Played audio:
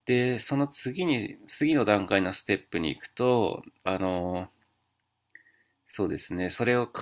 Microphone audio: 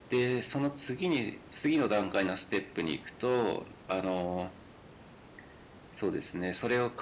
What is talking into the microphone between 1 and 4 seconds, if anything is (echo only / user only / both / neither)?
echo only